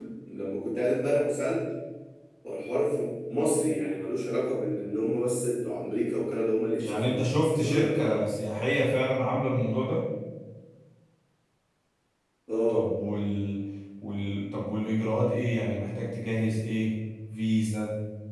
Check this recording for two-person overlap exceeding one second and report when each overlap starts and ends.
6.8-8.2

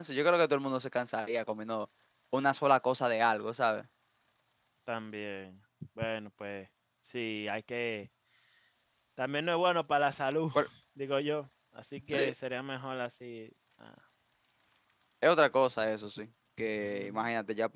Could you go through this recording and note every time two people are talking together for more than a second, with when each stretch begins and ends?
none

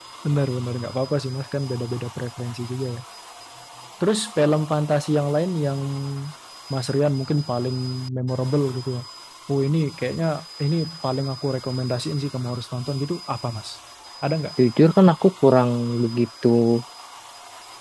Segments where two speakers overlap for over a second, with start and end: none

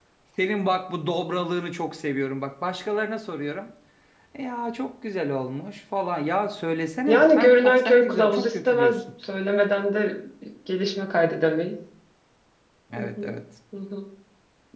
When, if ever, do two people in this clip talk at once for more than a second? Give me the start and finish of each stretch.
7.1-9.0

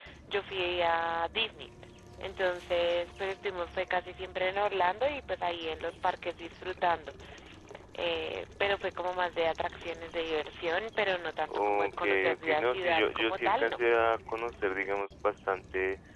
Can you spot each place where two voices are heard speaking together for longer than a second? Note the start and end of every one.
11.6-13.8

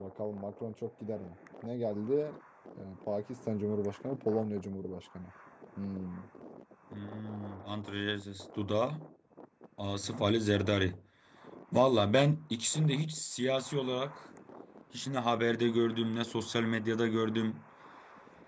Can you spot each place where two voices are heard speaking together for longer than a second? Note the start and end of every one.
none

